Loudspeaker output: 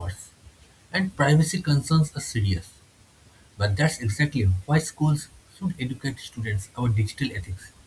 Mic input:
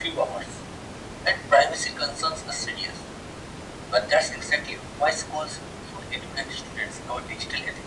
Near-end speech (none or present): none